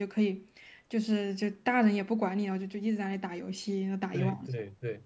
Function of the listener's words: taking over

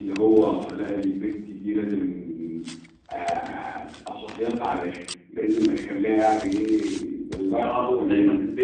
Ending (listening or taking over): taking over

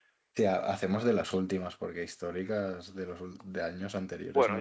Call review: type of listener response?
taking over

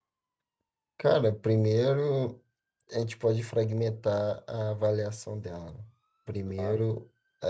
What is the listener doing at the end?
listening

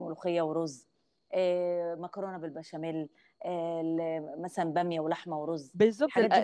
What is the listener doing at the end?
taking over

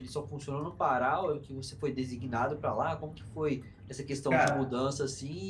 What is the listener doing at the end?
listening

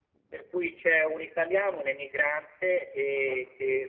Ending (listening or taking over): listening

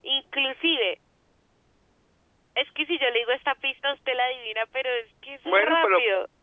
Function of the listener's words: taking over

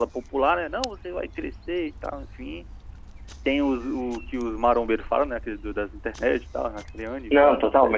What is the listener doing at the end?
taking over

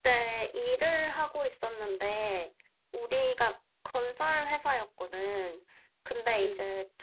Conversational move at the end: listening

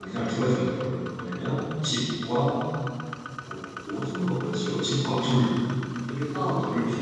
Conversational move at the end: listening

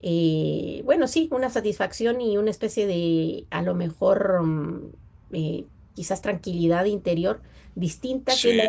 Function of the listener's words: listening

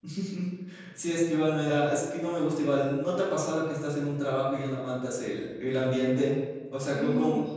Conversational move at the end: listening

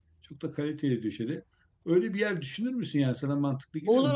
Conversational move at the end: taking over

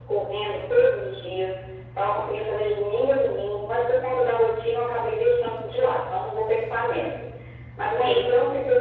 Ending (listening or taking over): listening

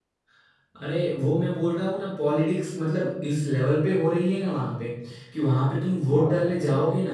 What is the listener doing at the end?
listening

